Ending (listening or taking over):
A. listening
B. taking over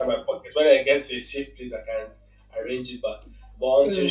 A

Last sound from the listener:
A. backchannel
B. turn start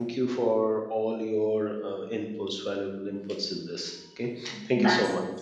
B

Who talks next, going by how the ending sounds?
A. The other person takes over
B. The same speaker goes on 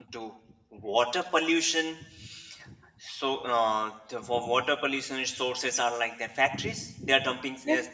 B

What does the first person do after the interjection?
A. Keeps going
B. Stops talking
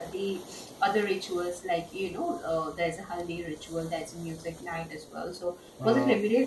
A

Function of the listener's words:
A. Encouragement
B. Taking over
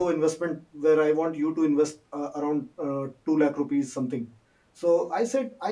A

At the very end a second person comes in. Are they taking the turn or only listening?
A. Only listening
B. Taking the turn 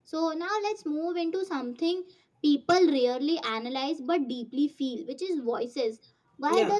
A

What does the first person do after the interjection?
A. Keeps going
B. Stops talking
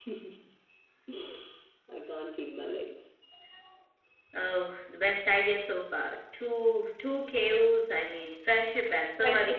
B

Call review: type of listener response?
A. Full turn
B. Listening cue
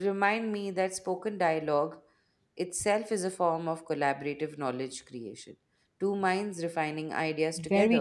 A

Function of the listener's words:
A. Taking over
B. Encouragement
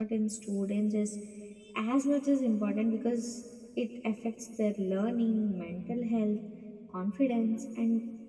B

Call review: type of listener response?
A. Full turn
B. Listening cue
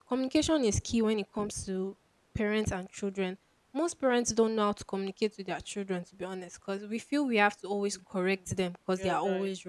B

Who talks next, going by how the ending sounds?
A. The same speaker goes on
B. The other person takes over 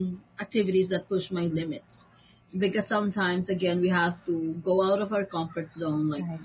A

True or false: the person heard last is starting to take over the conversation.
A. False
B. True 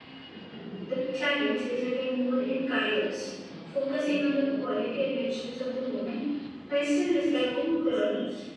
B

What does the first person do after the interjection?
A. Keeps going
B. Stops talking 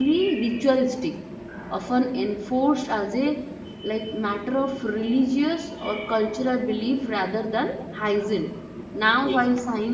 A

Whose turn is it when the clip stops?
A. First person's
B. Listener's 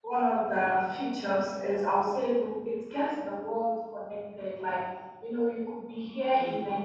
A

